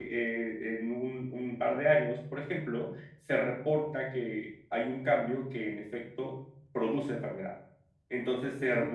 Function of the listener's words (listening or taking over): taking over